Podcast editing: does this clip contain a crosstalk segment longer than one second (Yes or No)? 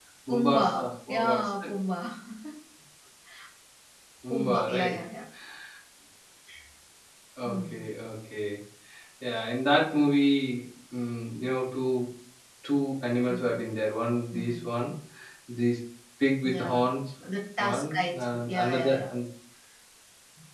Yes